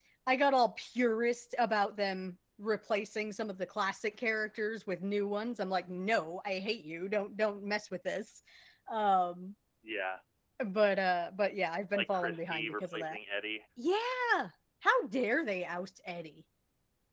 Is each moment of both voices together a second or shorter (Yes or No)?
No